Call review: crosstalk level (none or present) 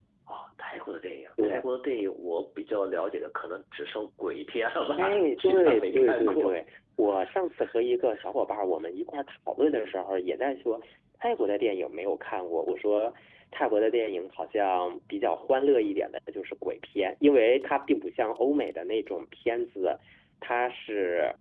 present